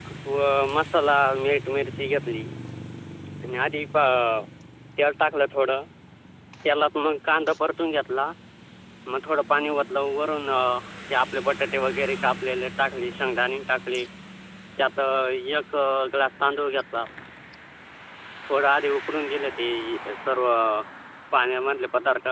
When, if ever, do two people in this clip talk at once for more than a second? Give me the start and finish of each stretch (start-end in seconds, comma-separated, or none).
none